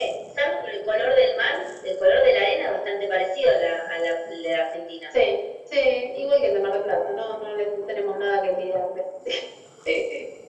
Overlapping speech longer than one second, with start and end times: none

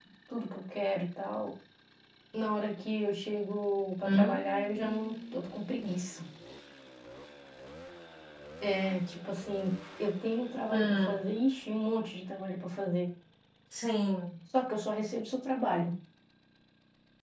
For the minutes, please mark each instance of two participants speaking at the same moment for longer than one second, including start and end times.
4.0-5.4

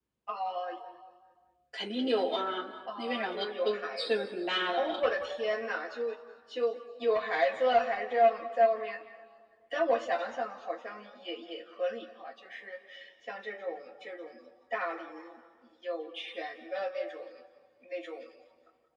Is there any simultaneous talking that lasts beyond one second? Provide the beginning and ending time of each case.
3.0-4.2

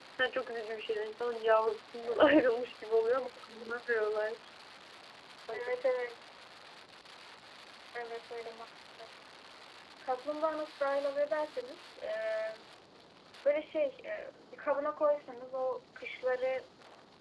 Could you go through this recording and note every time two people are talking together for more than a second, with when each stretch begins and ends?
none

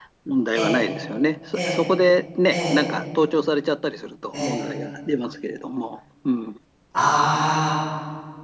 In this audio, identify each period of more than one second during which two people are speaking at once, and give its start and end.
none

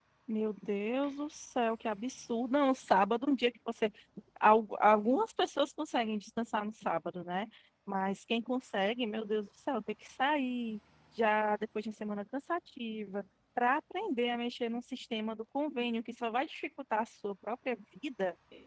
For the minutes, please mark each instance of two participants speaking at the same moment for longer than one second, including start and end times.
none

